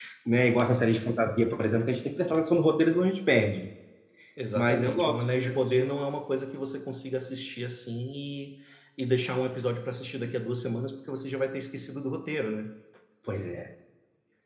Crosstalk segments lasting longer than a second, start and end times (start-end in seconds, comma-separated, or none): 4.5-5.9